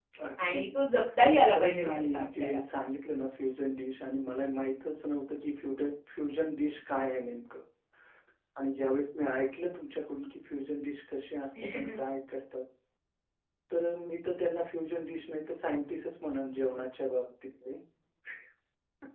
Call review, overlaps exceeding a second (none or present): present